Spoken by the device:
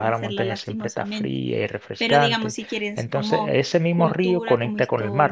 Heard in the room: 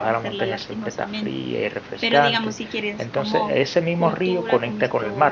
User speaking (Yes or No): No